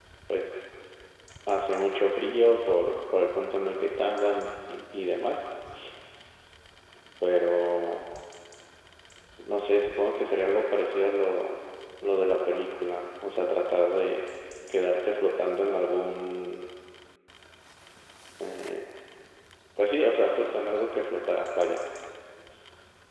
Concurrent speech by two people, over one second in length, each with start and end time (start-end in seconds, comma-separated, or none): none